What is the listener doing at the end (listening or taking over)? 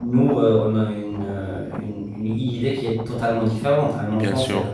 listening